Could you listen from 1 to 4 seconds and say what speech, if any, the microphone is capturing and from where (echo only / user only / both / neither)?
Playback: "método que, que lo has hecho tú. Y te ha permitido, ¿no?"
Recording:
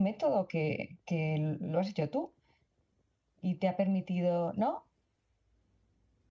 echo only